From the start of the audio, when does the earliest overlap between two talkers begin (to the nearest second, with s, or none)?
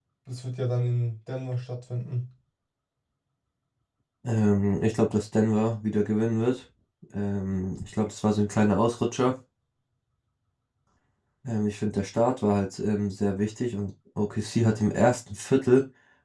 none